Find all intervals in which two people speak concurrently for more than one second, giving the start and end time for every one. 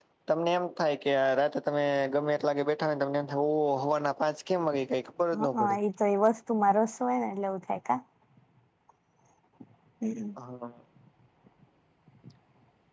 none

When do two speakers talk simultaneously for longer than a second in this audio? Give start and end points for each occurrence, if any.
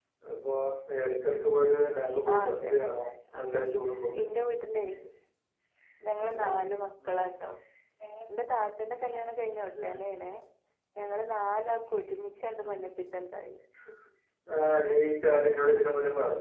none

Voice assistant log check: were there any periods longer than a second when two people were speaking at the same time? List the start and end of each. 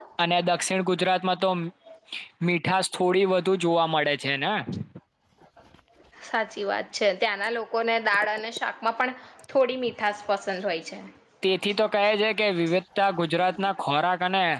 none

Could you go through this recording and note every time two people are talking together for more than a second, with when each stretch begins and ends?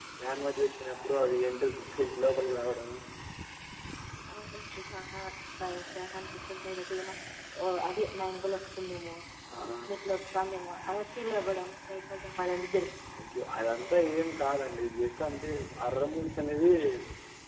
none

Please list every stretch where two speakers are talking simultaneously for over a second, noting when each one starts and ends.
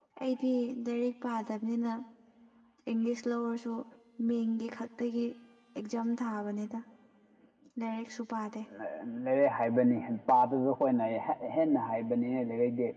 none

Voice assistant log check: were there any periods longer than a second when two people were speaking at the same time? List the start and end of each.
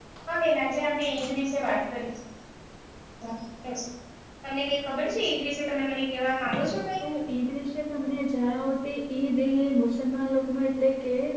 none

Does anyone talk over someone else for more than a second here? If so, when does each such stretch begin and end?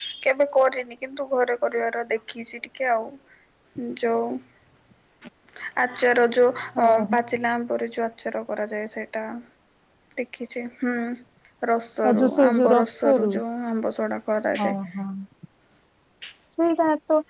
12.1-13.3

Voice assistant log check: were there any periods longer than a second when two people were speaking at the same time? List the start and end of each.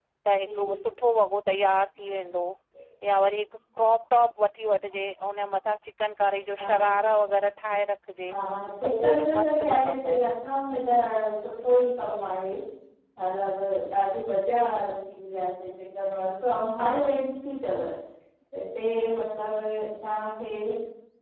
8.8-10.2

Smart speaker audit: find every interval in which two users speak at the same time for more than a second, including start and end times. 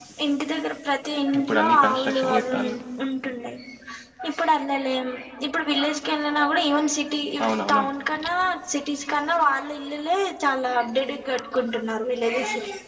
1.4-2.6

